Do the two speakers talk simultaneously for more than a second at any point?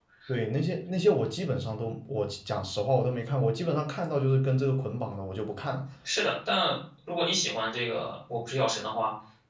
No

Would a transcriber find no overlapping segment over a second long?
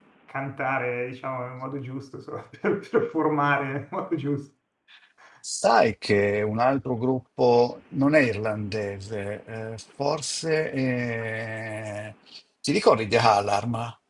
Yes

